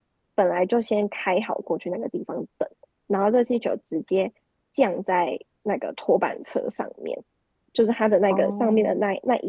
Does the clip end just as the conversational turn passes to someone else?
No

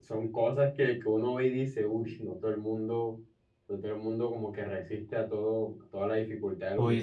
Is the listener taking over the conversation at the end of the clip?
Yes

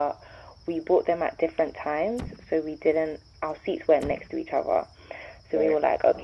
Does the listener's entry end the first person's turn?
No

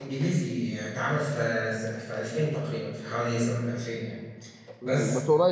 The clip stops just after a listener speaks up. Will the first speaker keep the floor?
No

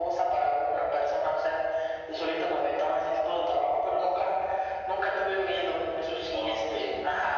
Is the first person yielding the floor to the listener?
No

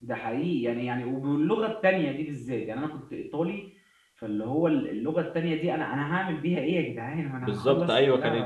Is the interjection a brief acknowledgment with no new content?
No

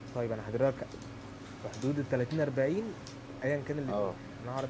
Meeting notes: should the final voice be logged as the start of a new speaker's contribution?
No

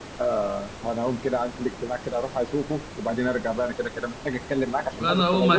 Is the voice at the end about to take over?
Yes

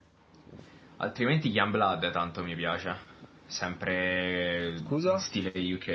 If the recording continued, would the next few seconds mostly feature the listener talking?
No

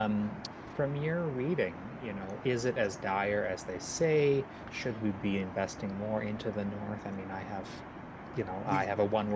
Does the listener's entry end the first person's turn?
No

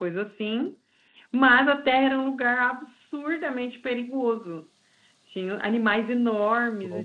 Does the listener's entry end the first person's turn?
No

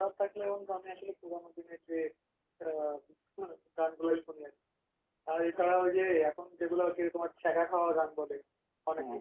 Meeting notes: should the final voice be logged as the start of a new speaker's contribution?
No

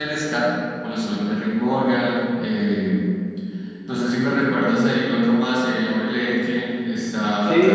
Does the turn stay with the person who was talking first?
No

